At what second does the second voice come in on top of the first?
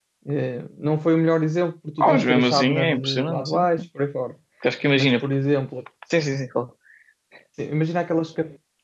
2.0 s

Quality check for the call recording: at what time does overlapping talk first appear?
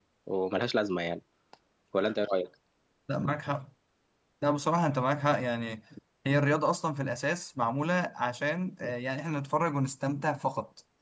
none

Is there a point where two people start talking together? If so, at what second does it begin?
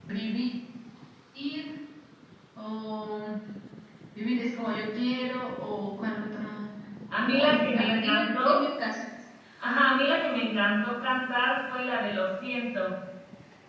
7.3 s

